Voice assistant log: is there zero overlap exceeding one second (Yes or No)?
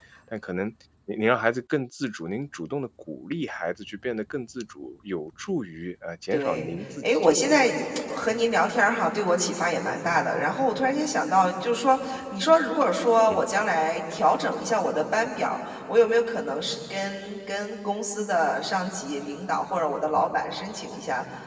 No